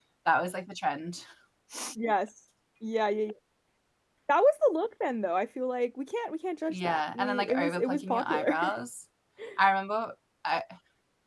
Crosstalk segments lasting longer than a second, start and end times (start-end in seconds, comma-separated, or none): 6.7-8.8